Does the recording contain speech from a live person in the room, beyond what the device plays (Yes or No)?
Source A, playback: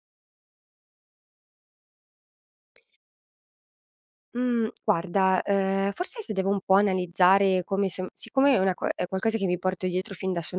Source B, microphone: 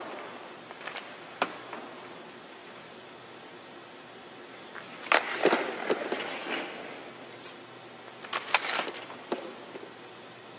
No